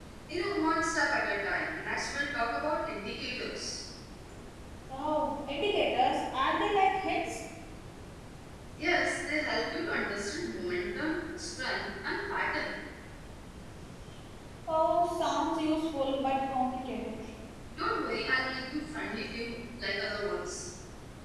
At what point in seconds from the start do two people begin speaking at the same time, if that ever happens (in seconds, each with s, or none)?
none